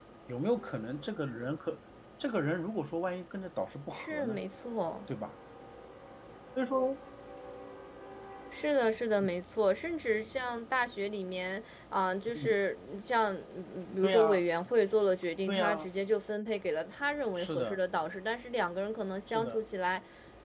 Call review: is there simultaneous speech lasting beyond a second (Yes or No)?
No